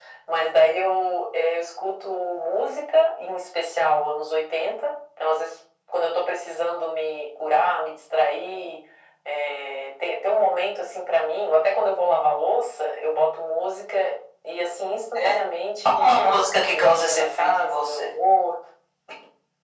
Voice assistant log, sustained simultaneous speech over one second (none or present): present